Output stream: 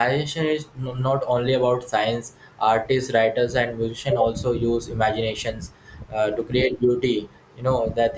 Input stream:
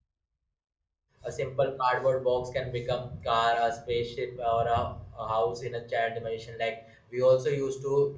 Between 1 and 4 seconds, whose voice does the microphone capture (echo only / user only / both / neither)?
user only